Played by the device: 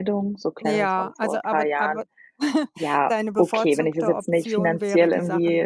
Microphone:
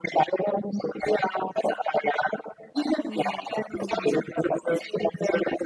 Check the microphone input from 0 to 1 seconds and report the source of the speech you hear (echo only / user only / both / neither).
echo only